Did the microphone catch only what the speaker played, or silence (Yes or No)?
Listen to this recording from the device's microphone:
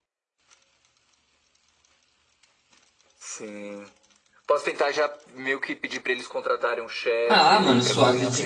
No